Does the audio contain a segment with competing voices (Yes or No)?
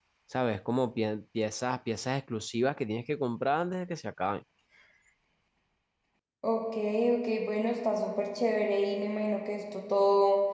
No